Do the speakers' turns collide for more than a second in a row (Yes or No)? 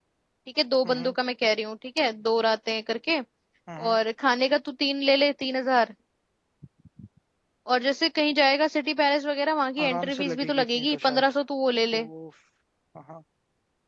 Yes